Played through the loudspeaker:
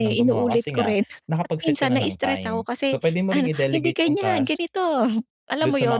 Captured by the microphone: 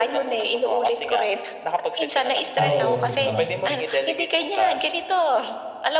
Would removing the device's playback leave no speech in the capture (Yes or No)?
No